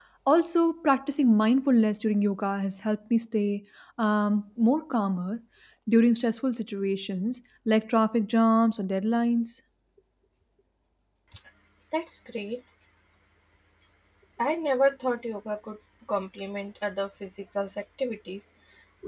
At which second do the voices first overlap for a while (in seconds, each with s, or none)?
none